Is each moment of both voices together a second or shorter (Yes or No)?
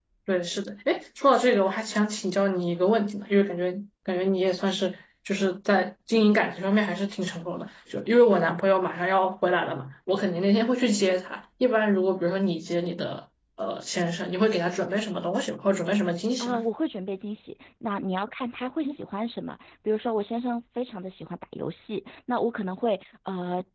Yes